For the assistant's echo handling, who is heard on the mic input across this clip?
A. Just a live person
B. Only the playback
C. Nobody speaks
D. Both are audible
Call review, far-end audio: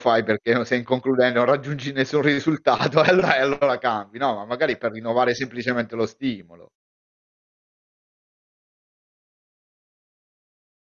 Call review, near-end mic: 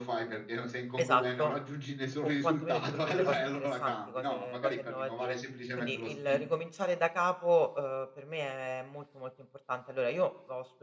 D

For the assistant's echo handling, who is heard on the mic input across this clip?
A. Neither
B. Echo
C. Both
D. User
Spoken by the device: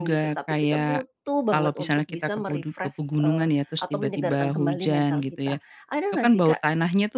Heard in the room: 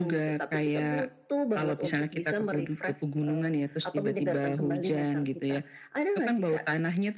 B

